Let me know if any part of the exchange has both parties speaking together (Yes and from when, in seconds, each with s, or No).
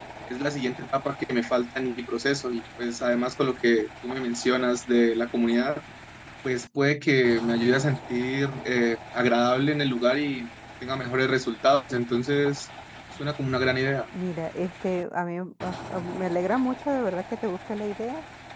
No